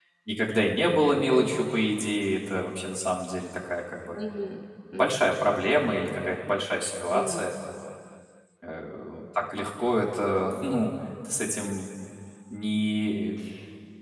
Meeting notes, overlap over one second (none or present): none